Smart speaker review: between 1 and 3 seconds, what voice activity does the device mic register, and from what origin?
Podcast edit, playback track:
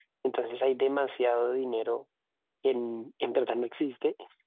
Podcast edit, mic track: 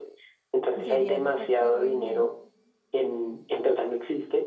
both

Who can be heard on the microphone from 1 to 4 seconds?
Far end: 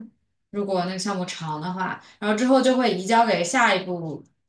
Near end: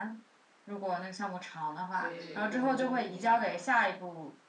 both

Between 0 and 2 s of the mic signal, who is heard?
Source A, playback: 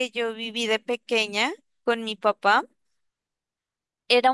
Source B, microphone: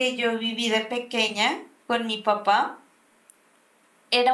echo only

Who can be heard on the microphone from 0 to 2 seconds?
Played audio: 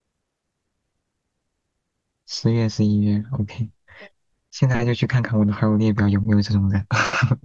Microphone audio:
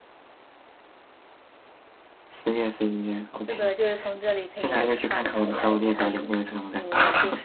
neither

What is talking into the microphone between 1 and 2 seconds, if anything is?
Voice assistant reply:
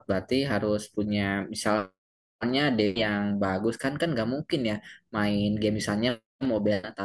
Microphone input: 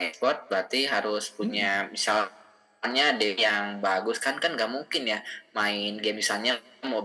both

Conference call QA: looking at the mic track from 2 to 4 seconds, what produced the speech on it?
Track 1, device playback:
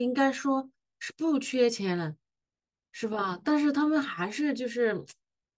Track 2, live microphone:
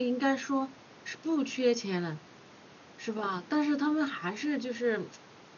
echo only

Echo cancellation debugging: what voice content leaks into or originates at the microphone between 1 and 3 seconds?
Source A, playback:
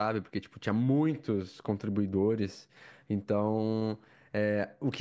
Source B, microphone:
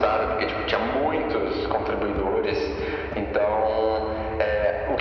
echo only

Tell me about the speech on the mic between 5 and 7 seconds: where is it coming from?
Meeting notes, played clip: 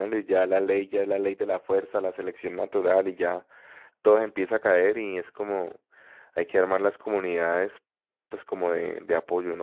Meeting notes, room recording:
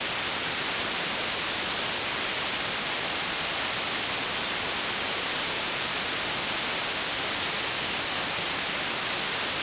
neither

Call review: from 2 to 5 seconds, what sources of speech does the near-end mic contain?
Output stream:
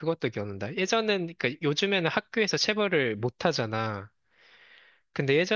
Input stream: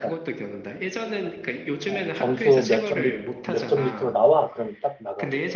both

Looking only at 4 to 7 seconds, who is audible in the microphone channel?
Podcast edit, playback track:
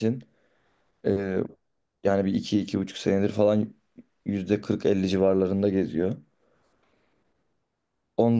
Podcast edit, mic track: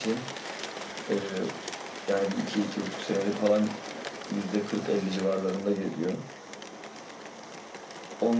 echo only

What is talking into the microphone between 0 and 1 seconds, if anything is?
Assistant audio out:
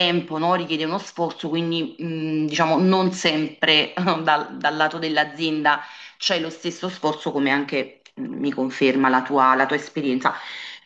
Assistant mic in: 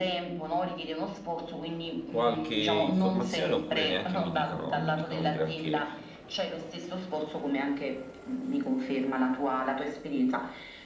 echo only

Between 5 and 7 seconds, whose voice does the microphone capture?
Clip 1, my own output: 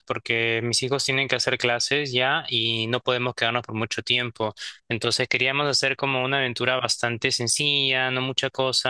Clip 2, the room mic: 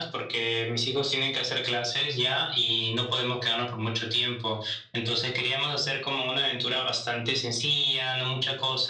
echo only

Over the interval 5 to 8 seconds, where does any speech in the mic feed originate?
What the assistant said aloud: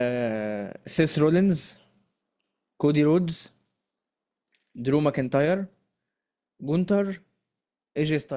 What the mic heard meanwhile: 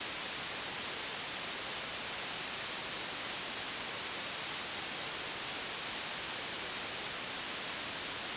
neither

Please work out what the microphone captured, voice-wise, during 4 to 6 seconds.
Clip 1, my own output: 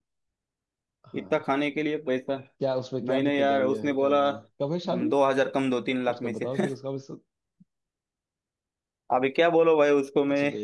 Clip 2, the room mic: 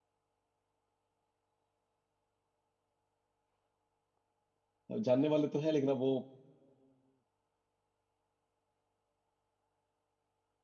user only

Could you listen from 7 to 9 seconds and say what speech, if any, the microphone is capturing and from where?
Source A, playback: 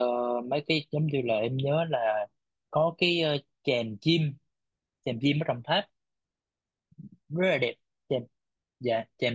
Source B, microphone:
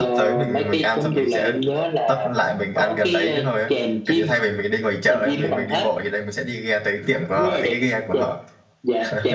both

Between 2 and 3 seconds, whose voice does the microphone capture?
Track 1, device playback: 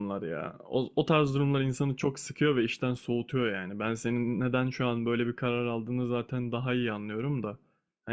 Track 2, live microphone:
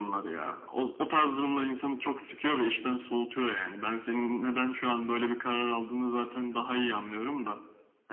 echo only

